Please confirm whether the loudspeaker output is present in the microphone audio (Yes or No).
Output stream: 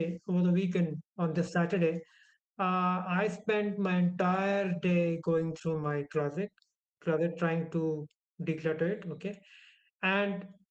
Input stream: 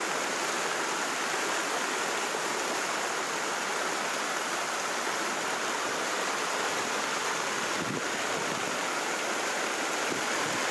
No